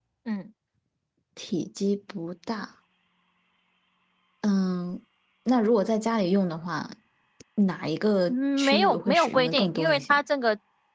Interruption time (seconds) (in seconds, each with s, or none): 8.3 s